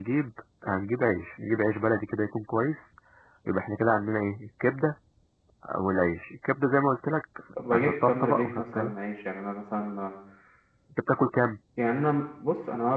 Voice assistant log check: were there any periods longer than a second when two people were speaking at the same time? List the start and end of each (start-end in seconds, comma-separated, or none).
7.7-8.9